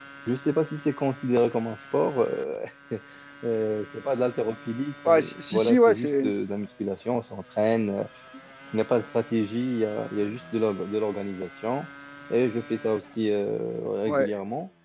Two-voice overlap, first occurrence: 5 s

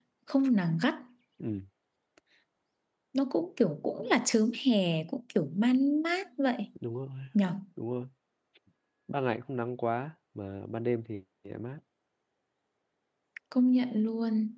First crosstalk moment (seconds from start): none

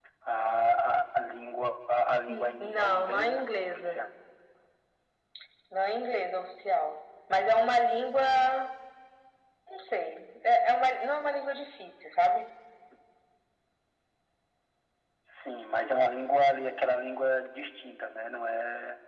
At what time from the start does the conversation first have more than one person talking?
2 s

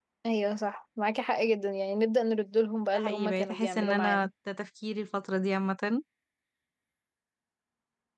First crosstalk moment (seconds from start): 3 s

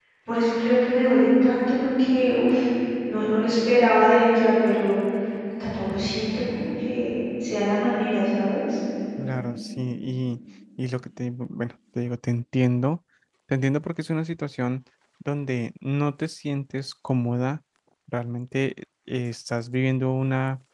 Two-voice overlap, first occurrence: none

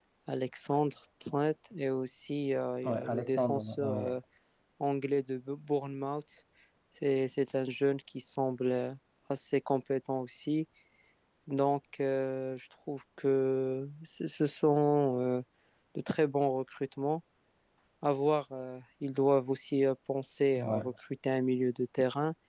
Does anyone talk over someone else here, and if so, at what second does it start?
3 s

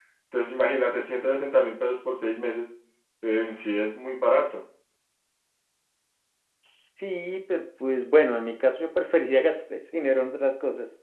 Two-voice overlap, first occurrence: none

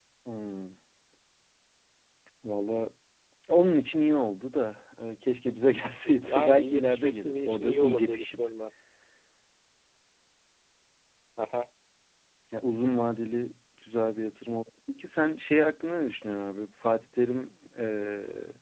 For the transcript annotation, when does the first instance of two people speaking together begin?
6 s

